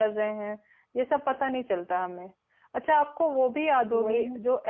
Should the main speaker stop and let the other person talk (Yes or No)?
No